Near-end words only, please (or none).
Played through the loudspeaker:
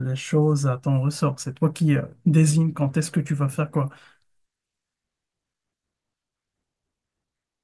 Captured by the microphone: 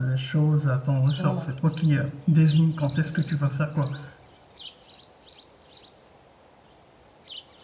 Voilà.